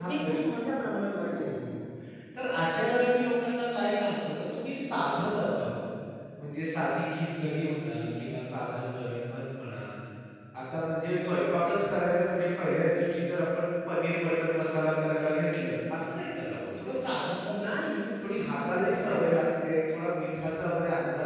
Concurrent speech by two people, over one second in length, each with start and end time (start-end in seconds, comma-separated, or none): none